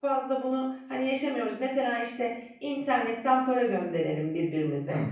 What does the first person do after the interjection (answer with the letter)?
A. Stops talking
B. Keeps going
B